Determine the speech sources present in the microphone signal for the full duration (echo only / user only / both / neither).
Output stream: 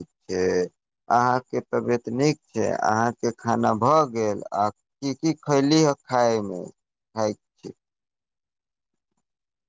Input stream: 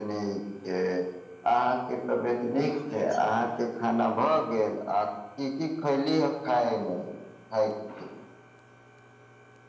both